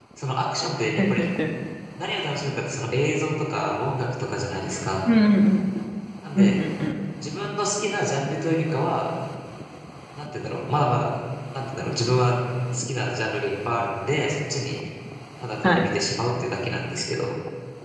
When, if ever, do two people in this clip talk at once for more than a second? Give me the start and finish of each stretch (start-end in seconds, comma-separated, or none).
none